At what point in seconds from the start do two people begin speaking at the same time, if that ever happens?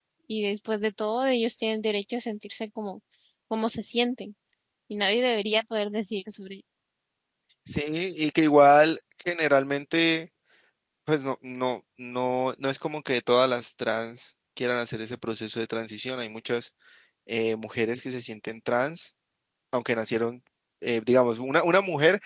none

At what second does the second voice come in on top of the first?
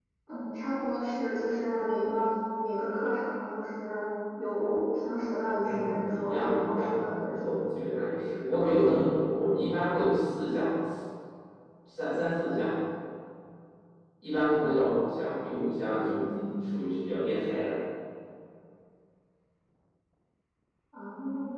5.6 s

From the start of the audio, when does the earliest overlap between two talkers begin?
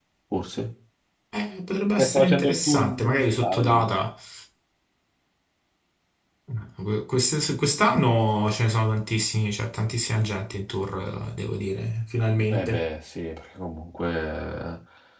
2.0 s

